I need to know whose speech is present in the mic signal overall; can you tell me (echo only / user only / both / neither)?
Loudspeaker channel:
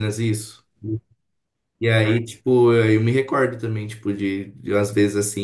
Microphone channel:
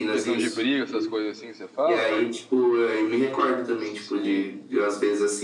both